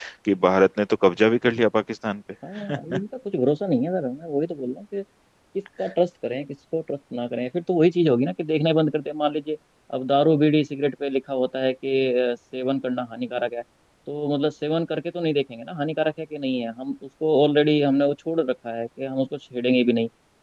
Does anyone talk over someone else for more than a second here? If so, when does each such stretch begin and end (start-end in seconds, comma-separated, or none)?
none